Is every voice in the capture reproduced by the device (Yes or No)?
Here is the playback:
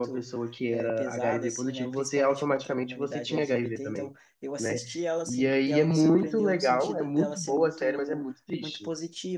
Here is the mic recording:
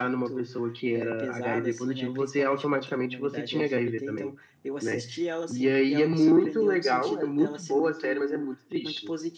Yes